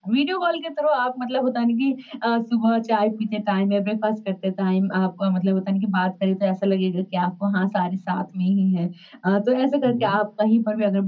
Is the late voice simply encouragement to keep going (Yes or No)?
Yes